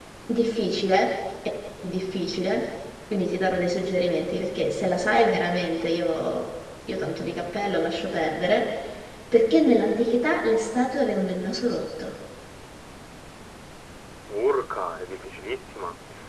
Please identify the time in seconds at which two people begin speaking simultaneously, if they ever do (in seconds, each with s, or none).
none